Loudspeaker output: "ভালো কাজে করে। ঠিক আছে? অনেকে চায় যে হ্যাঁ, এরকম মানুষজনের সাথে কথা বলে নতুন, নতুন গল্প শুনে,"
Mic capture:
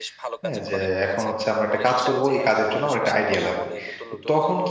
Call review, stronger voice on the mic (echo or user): user